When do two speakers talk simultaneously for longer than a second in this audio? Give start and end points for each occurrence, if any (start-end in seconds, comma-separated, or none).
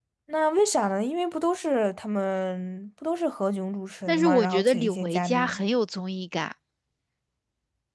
4.1-5.6